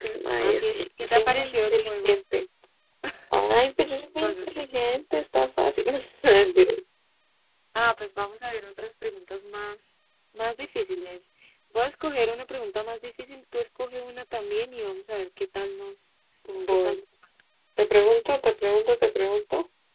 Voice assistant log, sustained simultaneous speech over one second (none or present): present